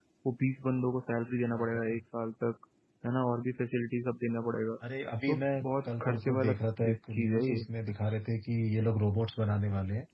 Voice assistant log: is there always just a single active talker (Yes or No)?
No